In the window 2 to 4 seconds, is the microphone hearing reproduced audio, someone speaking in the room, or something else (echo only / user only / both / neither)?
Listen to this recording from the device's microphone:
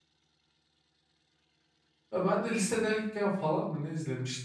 user only